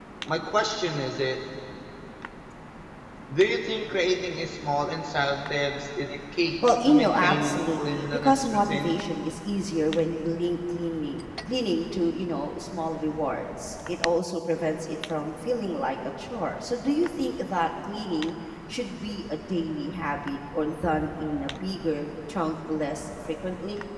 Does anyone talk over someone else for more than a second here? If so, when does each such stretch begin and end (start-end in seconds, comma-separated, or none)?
6.8-8.9